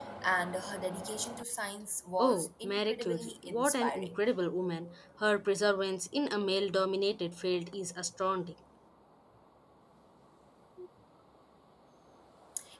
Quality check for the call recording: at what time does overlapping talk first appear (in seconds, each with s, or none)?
2.2 s